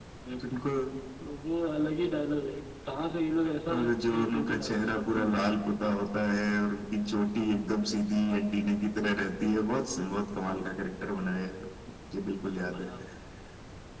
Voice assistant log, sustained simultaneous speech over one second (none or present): present